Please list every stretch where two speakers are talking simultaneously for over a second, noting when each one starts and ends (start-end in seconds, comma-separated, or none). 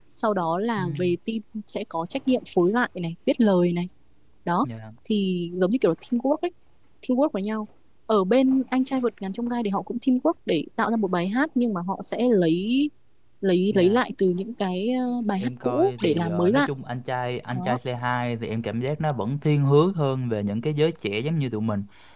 15.4-16.7